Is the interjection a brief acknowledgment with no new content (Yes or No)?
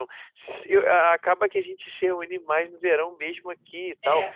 Yes